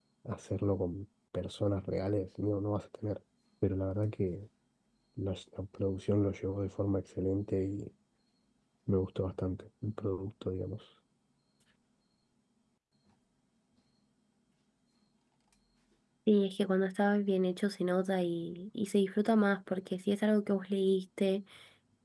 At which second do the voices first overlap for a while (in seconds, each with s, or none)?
none